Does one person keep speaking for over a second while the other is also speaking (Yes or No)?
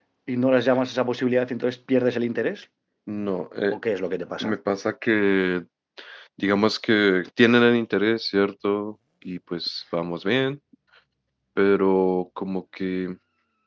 No